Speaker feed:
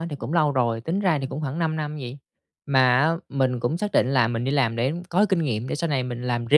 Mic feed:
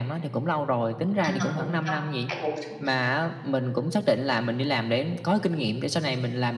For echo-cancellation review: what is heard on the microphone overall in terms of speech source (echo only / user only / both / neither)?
both